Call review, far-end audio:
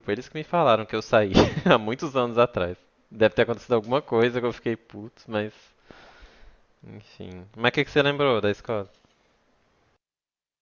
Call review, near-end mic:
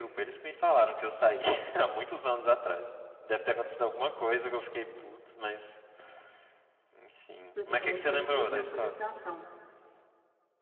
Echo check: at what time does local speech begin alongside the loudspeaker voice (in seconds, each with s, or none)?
7.5 s